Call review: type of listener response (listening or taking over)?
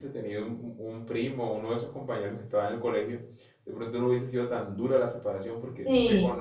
listening